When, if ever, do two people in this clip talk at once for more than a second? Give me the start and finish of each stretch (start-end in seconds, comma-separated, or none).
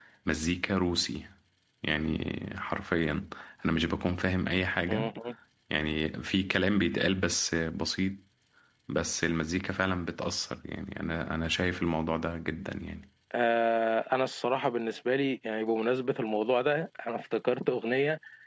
none